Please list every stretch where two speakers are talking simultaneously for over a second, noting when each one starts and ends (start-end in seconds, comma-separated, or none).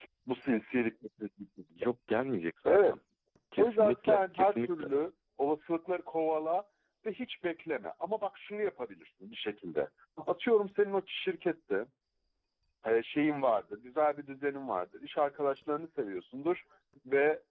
3.6-4.9